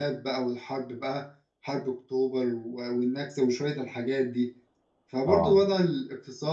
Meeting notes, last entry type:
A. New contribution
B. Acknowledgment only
B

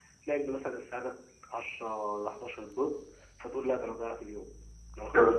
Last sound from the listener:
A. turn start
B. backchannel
B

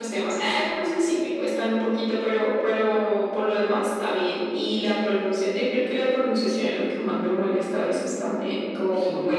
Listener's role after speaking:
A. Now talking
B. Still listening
B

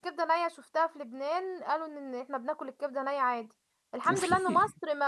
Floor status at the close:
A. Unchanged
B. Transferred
A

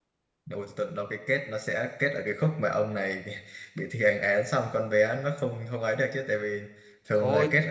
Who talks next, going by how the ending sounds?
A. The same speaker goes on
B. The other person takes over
B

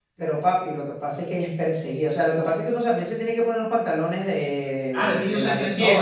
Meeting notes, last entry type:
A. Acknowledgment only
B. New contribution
B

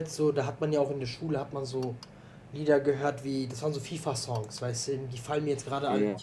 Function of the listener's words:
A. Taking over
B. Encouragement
B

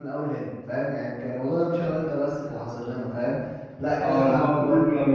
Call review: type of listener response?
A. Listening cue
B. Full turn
B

